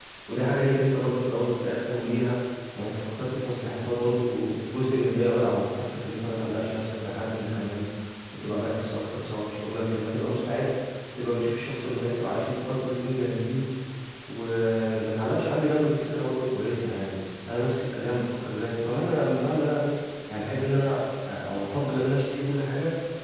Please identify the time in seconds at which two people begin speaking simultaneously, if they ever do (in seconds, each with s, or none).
none